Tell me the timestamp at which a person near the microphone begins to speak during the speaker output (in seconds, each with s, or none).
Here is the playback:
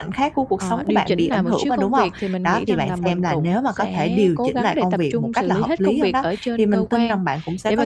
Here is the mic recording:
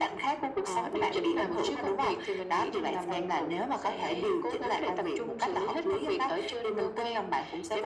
none